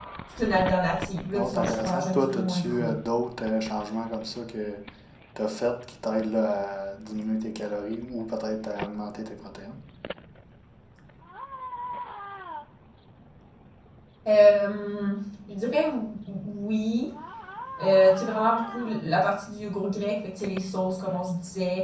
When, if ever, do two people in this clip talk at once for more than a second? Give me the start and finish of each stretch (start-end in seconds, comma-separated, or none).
1.3-2.9